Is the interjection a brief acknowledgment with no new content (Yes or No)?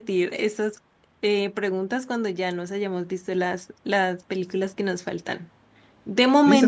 Yes